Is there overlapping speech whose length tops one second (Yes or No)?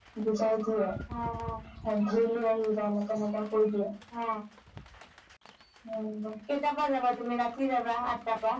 No